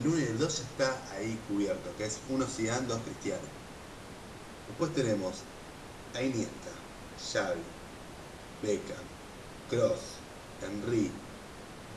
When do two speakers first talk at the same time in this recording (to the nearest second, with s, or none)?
none